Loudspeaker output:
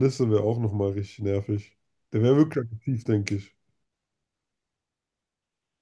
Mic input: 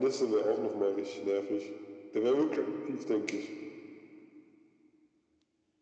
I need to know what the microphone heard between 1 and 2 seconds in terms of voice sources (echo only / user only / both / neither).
echo only